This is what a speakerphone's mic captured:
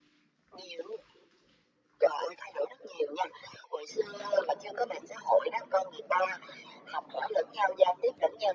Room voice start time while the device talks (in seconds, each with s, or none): none